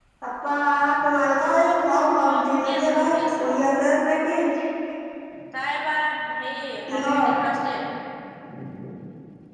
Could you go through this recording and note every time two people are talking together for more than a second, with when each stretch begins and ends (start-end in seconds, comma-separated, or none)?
2.2-3.4